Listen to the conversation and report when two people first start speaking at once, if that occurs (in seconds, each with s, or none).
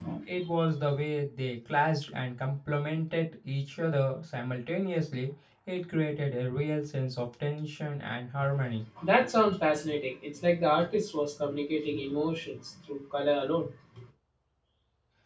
none